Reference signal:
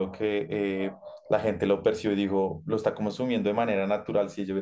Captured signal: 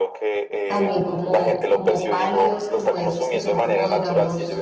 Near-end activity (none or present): present